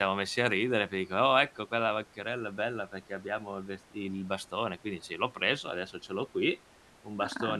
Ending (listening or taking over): listening